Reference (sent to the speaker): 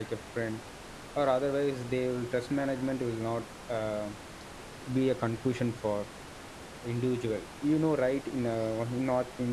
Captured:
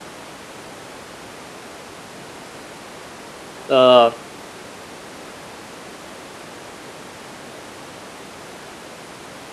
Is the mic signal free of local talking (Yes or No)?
No